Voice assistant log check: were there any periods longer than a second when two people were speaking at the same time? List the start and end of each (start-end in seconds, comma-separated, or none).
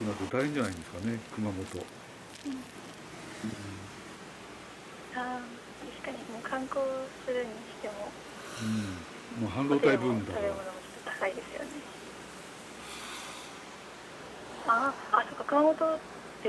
9.3-10.6